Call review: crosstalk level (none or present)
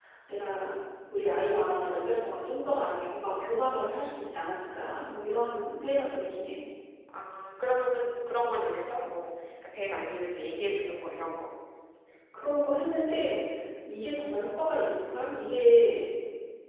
none